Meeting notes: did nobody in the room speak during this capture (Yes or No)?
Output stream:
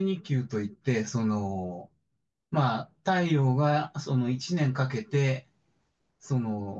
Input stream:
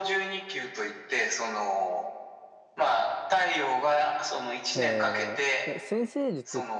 No